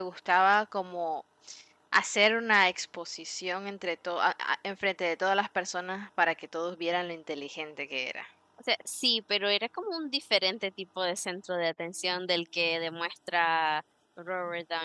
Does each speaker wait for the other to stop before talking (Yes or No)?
Yes